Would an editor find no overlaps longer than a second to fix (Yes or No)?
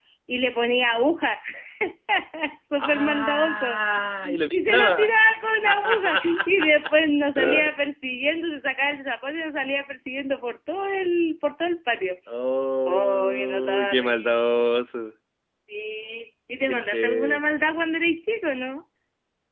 No